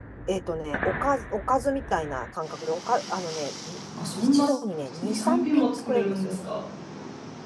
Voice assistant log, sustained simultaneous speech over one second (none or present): present